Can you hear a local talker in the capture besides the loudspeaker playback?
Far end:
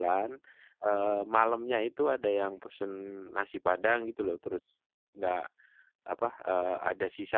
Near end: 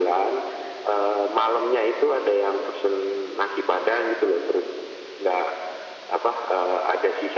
No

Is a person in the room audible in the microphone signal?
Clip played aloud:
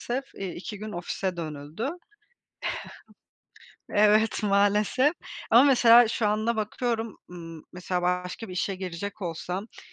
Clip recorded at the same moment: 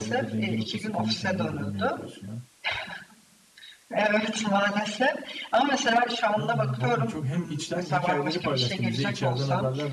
Yes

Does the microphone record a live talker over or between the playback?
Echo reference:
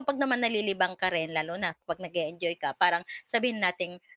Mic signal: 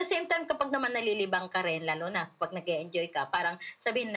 No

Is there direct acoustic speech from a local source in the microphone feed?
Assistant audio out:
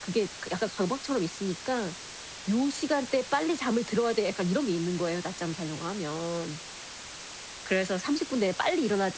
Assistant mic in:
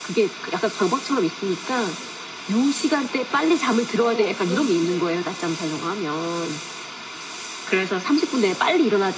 Yes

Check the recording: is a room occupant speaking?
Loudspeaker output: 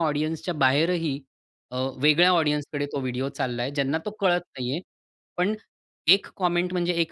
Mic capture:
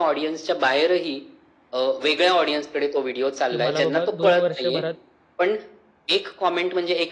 Yes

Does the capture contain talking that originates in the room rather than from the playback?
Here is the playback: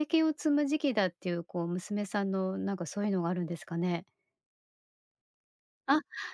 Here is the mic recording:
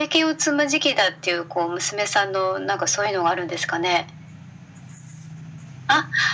No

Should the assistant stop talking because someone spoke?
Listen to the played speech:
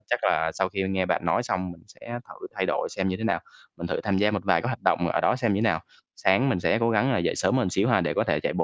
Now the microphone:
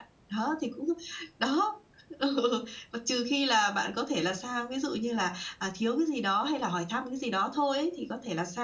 Yes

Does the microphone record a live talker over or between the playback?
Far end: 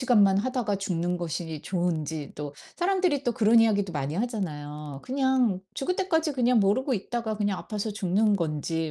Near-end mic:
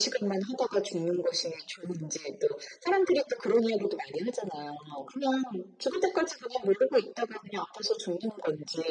No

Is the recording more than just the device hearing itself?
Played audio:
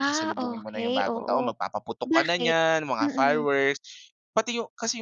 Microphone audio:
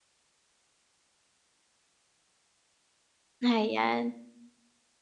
Yes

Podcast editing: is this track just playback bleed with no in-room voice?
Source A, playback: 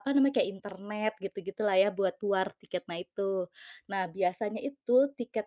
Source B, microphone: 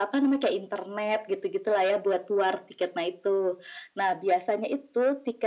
Yes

